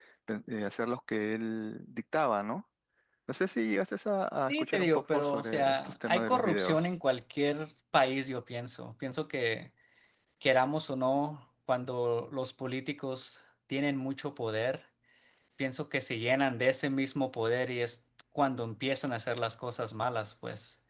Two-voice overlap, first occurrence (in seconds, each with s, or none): 4.5 s